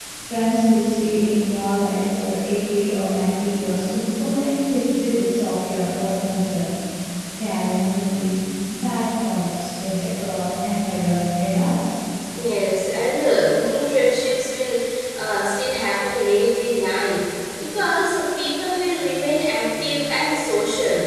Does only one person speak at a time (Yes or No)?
Yes